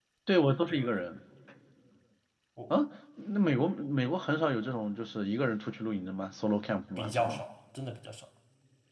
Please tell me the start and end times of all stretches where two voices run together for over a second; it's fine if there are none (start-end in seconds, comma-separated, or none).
none